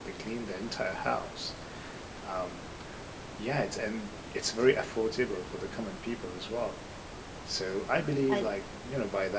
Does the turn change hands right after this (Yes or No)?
No